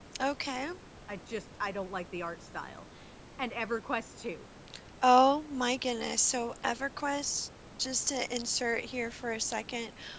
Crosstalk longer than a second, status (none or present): none